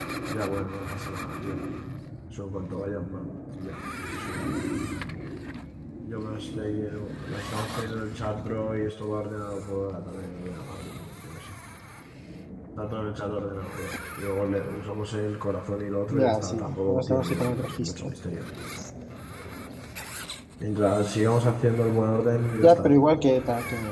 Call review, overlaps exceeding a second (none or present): present